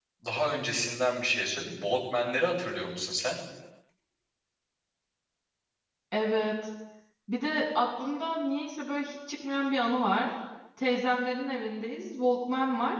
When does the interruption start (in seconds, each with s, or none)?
none